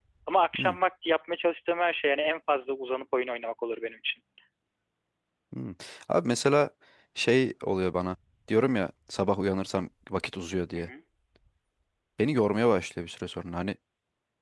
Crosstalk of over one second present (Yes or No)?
No